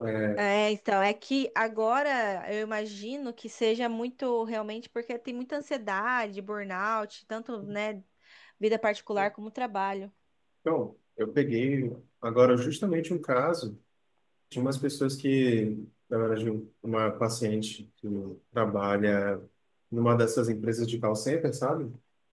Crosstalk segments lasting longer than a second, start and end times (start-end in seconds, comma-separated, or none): none